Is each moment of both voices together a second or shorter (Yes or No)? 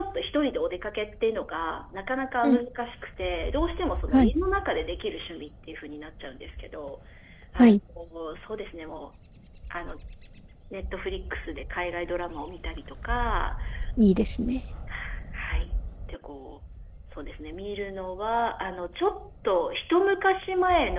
Yes